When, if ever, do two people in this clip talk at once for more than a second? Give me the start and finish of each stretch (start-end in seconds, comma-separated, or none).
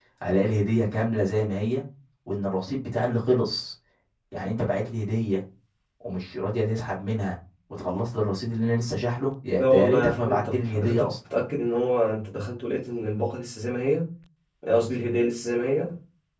9.6-11.1